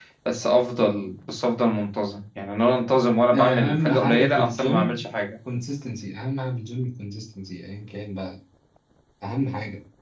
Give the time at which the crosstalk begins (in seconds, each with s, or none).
3.3 s